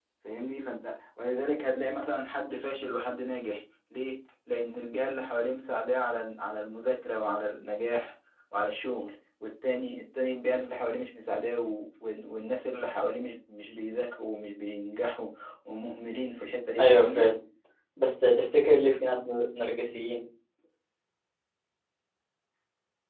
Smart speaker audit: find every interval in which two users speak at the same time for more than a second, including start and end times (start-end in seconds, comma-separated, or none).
none